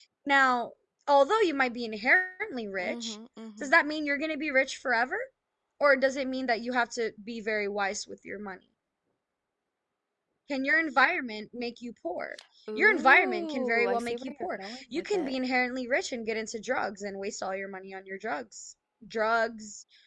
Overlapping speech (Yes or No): Yes